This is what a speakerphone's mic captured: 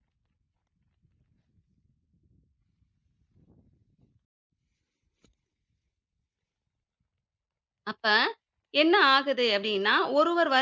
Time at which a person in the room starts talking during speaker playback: 7.9 s

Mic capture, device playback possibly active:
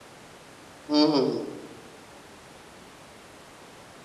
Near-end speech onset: 0.9 s

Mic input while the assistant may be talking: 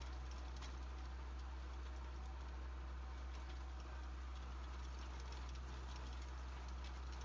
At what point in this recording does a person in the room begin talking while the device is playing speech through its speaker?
none

